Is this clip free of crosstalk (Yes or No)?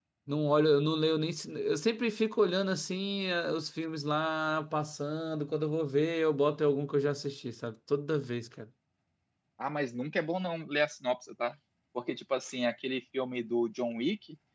Yes